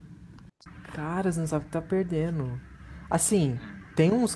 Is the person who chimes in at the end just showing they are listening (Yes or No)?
Yes